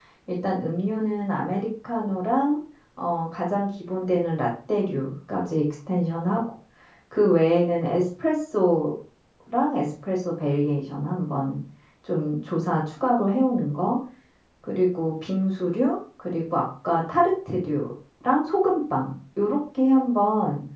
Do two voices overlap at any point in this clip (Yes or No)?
No